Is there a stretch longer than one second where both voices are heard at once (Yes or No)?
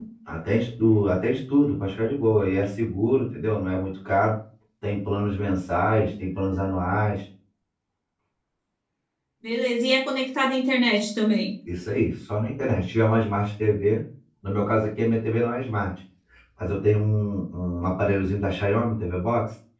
No